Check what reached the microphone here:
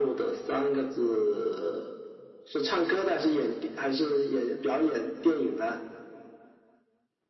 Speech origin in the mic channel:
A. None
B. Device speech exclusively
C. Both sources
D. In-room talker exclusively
B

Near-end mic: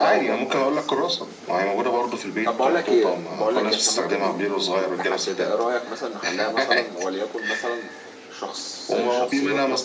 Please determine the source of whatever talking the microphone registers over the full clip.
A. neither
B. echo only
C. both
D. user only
C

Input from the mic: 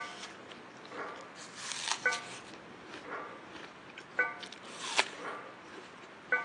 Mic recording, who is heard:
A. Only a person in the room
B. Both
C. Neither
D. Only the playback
C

